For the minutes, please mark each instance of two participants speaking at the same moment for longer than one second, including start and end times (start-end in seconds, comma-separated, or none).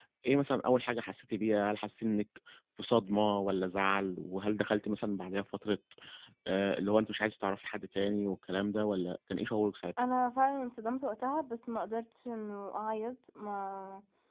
none